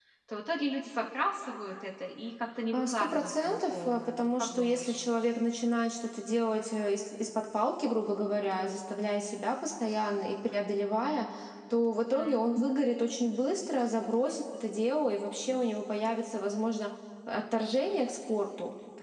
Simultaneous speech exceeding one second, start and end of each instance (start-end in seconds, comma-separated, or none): 2.7-5.0